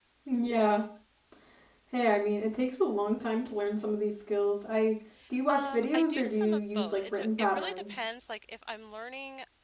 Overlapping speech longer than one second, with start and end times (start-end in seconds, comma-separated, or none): 5.5-8.0